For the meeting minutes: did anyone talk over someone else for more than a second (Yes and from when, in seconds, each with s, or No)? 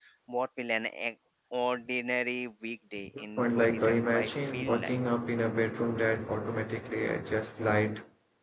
Yes, from 3.2 s